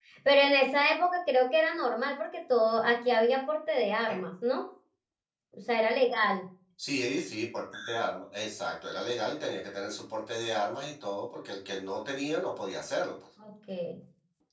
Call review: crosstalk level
none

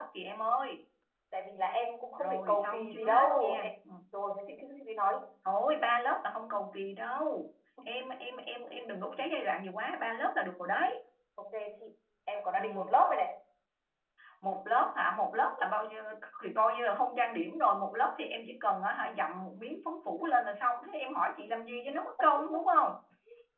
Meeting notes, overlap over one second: present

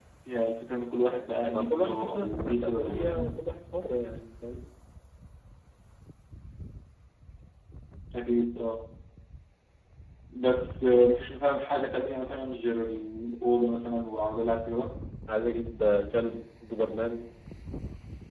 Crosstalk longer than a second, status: present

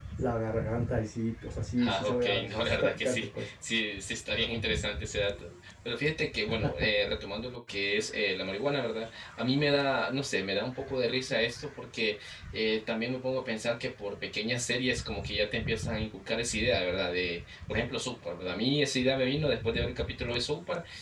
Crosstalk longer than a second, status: present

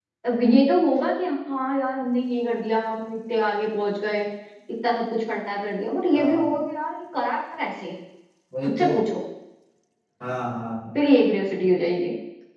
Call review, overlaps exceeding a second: none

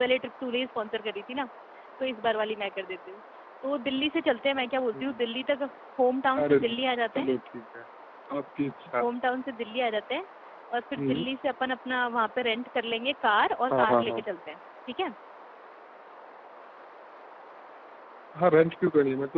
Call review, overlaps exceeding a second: none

